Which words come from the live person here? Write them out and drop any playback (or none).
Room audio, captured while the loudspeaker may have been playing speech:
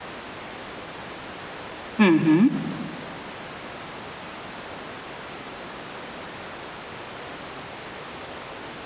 हुँ, हुँ।